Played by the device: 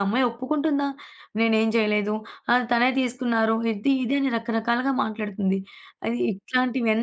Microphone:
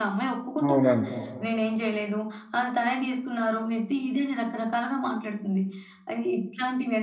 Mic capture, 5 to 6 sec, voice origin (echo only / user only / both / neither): echo only